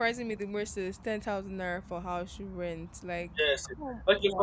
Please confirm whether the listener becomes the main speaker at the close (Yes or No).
Yes